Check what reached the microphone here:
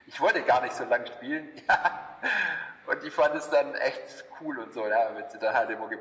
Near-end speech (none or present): none